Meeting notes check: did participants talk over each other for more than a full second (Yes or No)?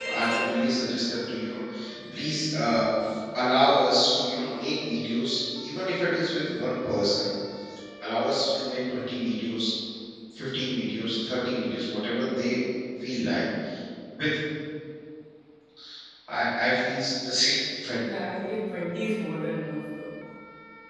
No